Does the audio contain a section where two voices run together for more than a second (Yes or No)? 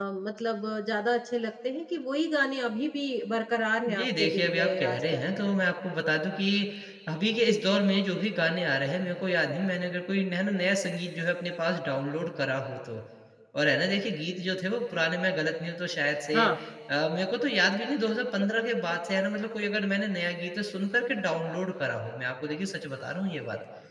Yes